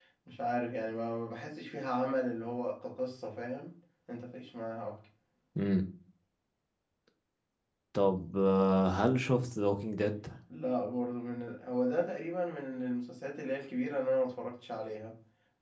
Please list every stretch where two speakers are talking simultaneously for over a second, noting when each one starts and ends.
none

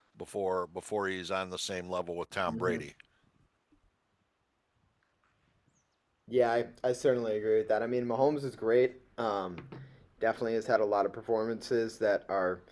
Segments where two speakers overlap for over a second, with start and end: none

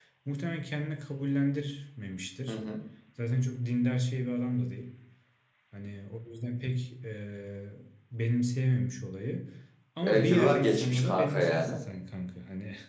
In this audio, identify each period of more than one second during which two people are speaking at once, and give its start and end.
10.0-11.8

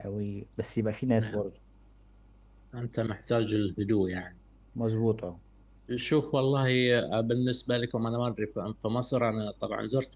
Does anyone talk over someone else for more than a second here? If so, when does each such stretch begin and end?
none

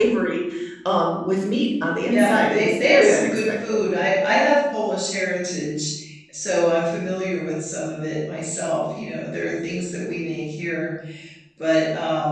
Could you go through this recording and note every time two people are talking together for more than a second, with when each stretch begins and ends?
2.1-3.8

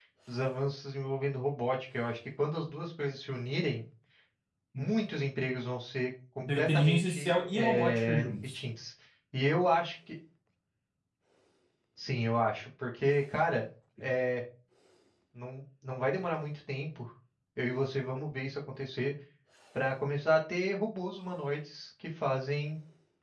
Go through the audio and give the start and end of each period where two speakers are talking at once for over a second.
6.4-8.6

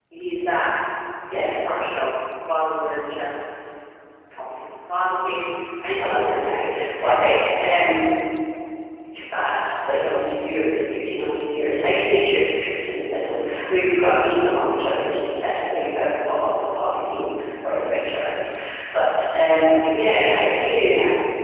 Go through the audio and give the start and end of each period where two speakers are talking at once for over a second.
6.0-7.3

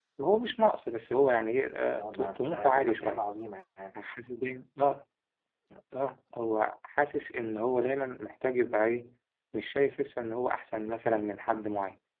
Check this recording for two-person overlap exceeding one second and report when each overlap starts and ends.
2.0-3.2

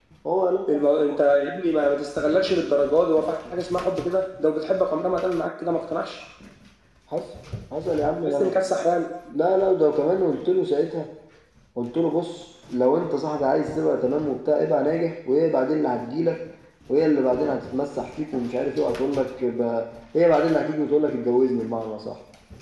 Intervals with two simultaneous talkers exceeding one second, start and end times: none

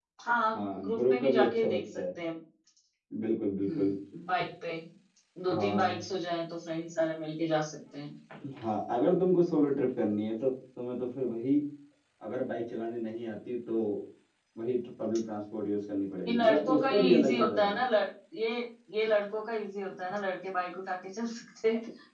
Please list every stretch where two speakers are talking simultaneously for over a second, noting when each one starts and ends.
0.6-2.0, 16.2-17.8

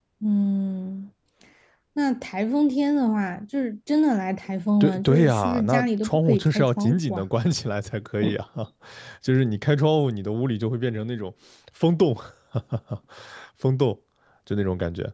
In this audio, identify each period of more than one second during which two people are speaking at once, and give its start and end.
4.8-7.2

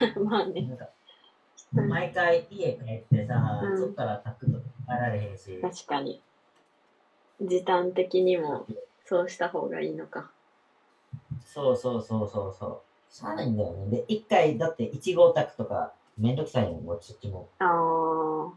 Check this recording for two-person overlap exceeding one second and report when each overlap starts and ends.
none

